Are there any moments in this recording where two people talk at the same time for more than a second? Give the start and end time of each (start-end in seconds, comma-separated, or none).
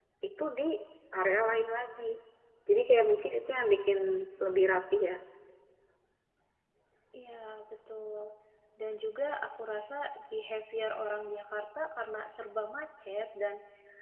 none